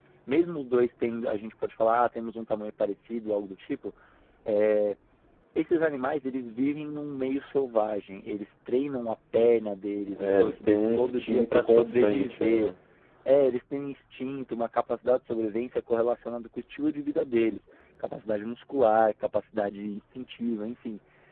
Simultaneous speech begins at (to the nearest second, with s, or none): 10 s